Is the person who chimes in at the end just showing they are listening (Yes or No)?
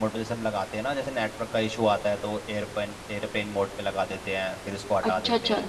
No